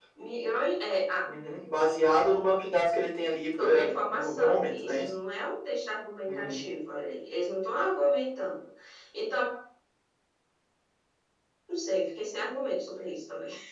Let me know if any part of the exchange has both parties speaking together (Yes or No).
Yes